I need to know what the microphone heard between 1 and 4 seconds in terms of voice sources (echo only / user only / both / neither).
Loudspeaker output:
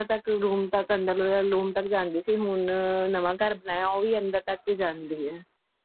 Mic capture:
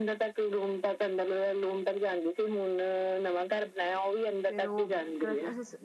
echo only